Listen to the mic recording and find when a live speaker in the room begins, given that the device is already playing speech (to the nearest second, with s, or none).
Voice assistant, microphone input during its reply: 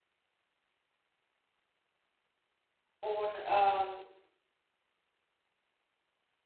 3 s